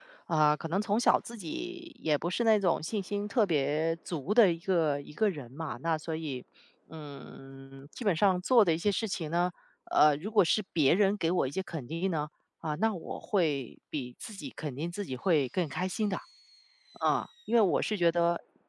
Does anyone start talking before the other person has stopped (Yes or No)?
No